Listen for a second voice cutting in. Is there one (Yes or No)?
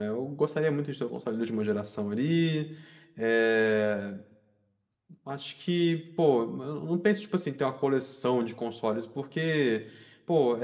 No